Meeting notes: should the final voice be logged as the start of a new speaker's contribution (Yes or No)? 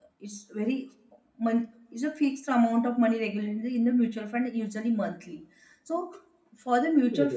No